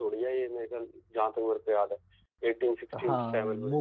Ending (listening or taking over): taking over